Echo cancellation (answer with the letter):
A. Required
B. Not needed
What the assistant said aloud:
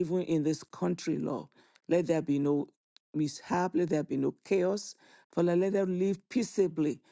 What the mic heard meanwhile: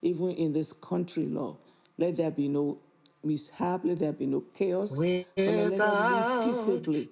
A